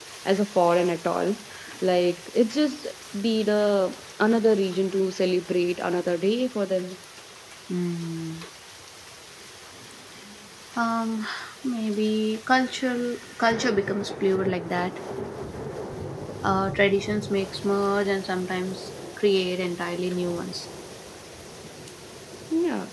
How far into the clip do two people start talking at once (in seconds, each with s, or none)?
none